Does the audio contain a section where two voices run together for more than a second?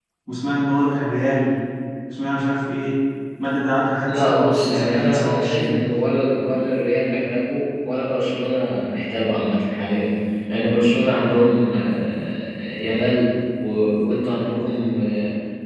Yes, from 4.1 s

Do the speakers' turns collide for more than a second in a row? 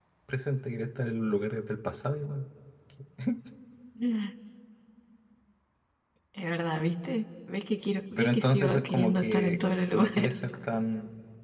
Yes, from 8.2 s

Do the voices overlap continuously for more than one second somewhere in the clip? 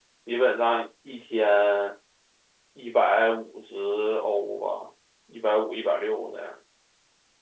No

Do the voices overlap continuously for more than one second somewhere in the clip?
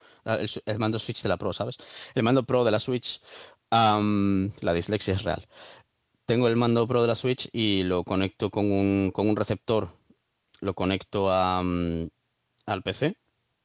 No

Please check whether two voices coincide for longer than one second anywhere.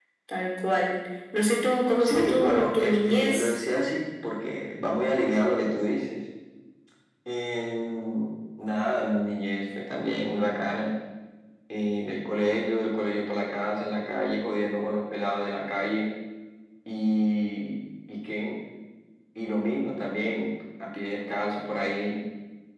Yes, from 2.0 s

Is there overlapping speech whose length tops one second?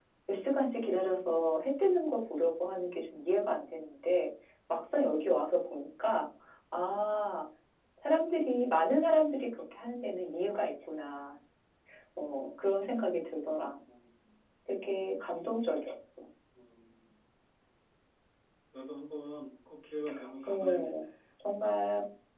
No

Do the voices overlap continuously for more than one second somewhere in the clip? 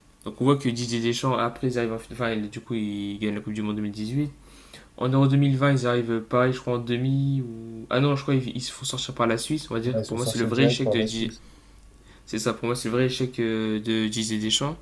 Yes, from 9.8 s

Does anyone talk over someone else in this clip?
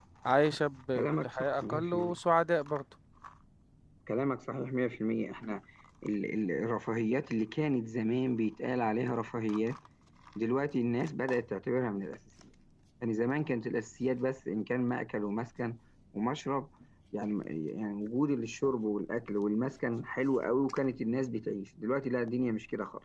Yes, from 1.0 s

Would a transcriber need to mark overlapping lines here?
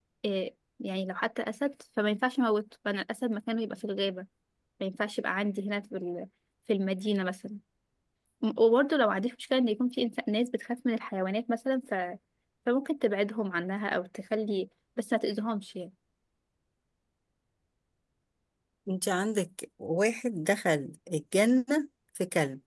No

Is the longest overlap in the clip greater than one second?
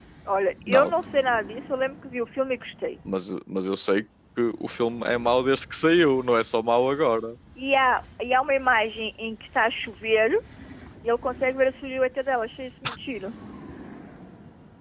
No

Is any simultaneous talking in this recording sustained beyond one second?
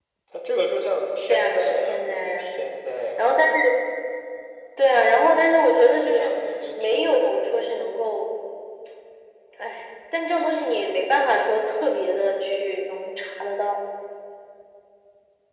Yes, from 1.3 s

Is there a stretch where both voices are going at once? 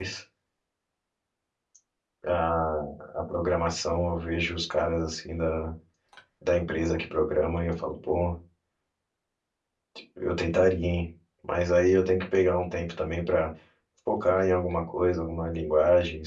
No

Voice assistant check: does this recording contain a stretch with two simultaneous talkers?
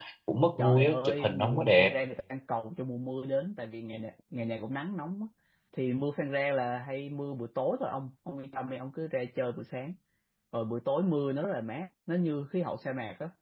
Yes, from 0.6 s

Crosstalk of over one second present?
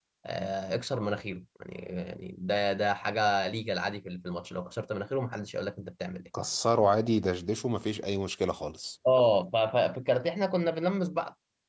No

